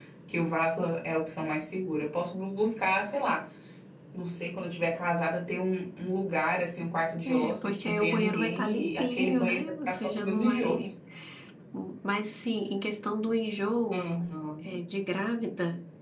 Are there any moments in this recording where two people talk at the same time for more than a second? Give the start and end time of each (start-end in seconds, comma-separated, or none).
7.4-10.9